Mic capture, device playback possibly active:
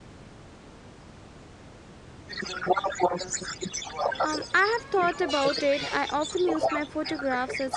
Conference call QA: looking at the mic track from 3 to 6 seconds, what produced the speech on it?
both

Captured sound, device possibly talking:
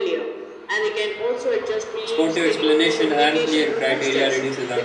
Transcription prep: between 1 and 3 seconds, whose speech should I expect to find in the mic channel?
both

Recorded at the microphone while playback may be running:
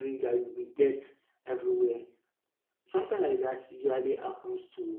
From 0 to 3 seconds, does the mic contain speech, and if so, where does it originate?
user only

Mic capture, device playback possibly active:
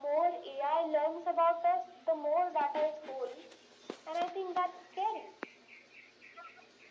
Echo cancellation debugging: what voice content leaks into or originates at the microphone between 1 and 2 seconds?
echo only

